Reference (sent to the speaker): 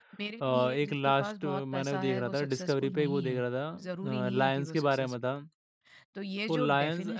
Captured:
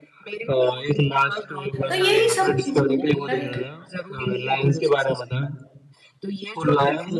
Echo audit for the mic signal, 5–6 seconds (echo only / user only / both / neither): echo only